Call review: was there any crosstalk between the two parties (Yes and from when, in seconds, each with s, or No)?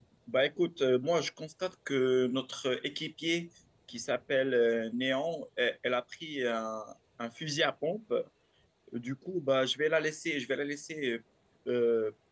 No